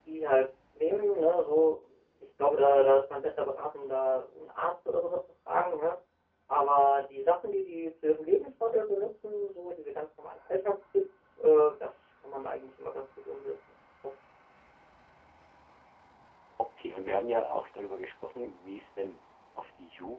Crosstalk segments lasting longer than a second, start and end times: none

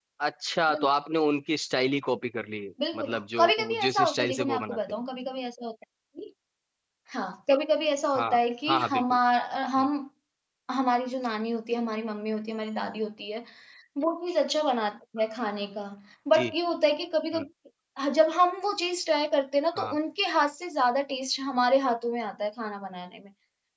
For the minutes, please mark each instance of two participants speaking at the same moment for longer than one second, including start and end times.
2.9-4.8

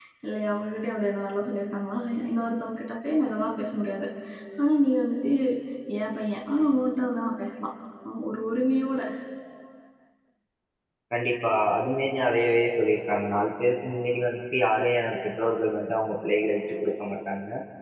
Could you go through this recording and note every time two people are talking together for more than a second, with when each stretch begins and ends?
none

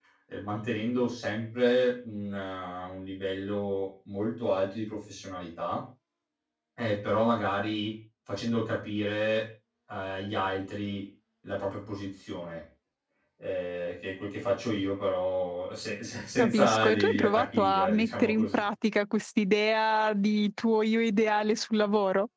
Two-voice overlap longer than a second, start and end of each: 16.4-18.6

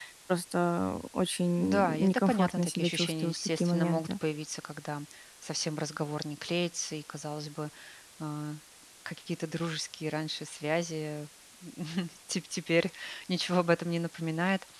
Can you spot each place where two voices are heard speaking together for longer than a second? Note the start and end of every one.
1.6-4.1

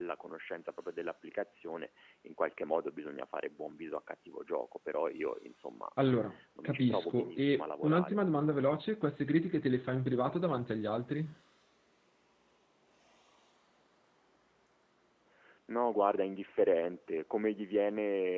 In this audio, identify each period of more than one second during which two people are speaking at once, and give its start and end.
6.6-8.2

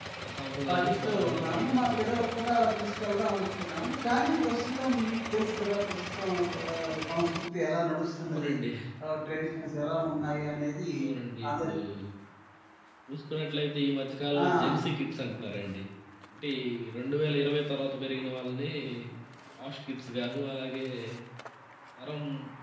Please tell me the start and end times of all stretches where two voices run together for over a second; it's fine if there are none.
0.7-2.4

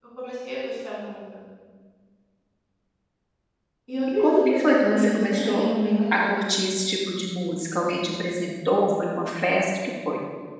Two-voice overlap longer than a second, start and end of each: 4.2-5.6

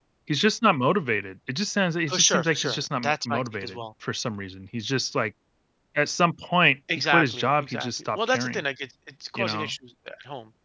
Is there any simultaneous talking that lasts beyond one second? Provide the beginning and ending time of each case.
2.1-3.8, 6.9-8.6

